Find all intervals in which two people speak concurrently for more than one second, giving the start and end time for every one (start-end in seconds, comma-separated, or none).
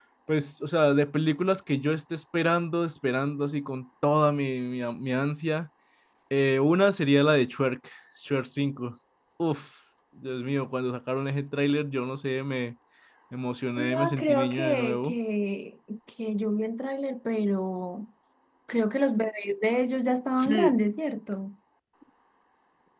13.8-15.1